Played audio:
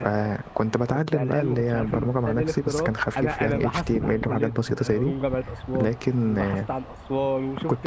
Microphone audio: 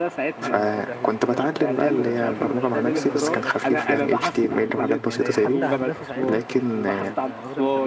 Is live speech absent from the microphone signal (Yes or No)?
No